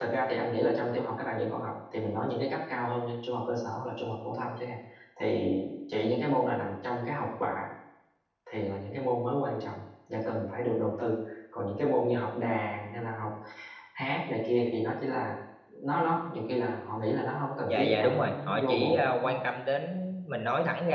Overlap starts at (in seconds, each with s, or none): 17.7 s